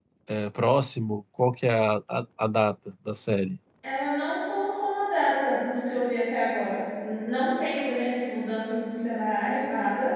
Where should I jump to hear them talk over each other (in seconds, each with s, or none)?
none